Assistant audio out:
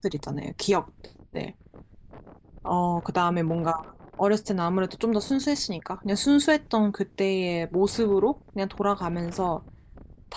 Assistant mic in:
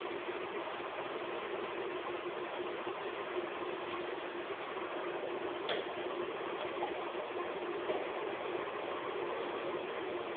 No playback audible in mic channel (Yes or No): Yes